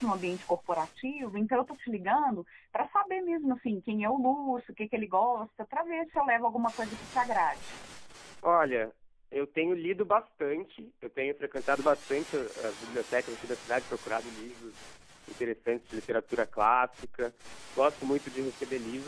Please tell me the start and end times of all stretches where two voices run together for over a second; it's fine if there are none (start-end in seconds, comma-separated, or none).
none